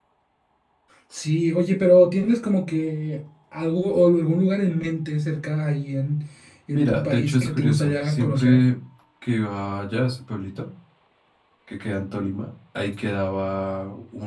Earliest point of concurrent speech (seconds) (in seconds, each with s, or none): 6.7 s